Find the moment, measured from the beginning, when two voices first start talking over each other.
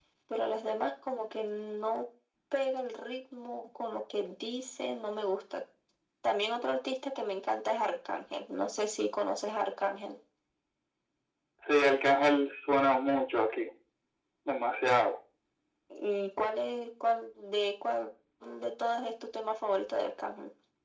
none

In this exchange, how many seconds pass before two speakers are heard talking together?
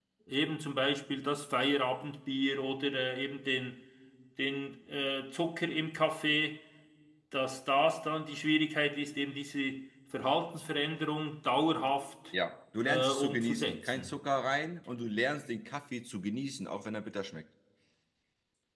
12.8 s

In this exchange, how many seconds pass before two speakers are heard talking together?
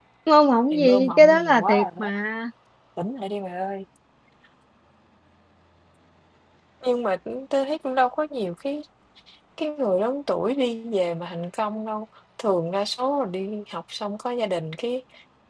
0.7 s

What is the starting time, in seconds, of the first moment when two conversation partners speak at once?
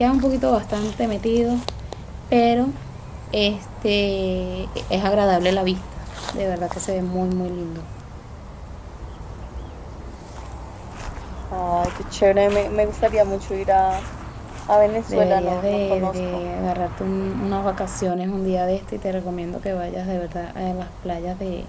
15.1 s

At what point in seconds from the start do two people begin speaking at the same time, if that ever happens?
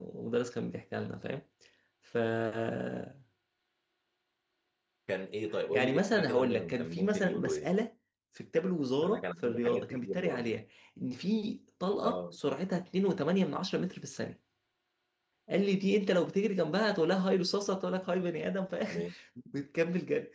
5.7 s

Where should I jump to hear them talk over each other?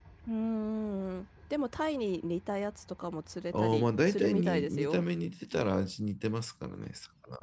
3.5 s

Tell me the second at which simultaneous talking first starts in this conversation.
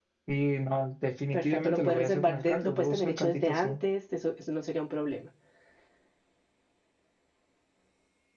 1.3 s

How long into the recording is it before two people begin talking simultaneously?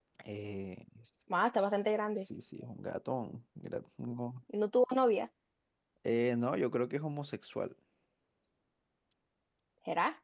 none

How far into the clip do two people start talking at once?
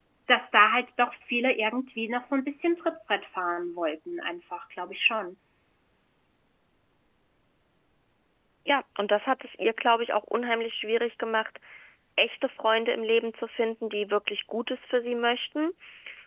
none

